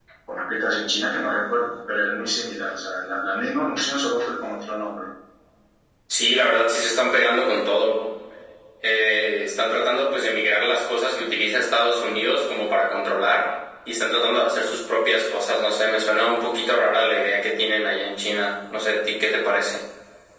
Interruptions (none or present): none